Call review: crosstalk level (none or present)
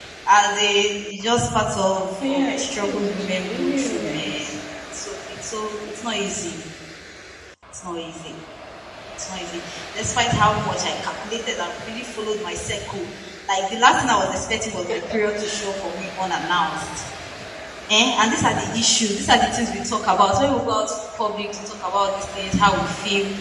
present